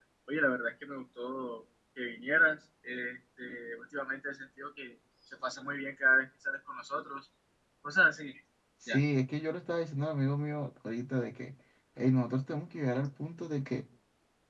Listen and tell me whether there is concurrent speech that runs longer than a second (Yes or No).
No